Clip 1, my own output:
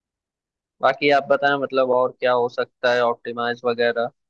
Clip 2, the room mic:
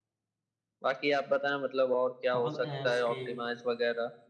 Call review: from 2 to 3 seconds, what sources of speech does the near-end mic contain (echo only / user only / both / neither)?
both